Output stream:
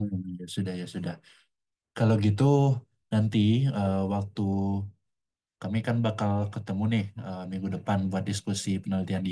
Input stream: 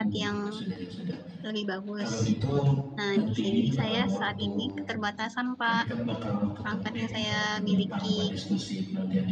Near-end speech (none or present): present